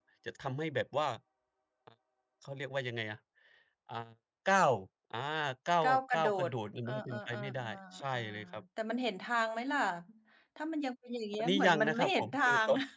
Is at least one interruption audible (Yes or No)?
Yes